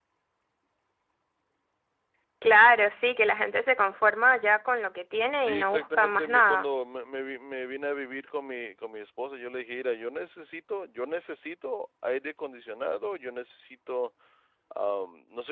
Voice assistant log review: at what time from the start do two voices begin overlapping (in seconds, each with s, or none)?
5.3 s